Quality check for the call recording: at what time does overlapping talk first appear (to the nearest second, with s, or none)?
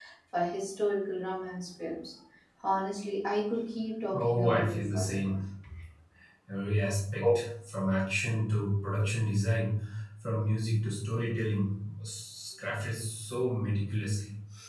4 s